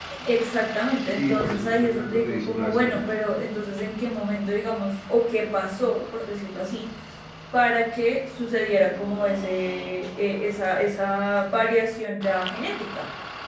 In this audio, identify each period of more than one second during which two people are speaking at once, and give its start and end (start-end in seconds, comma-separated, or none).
1.1-2.9